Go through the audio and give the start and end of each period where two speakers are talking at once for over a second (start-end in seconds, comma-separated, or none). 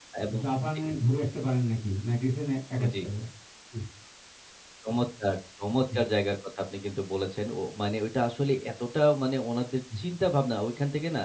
none